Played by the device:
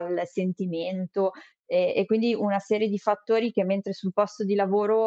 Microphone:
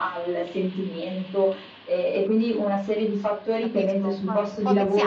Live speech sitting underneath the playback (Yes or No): Yes